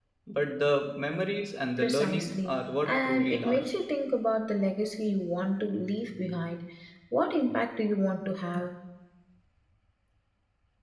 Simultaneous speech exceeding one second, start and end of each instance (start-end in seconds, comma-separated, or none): 1.8-3.7